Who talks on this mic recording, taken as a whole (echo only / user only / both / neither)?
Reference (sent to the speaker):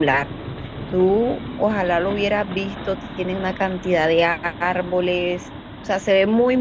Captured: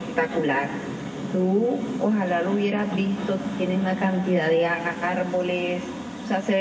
echo only